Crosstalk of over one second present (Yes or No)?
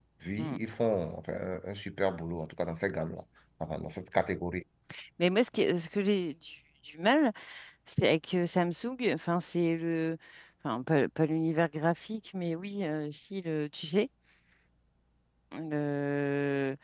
No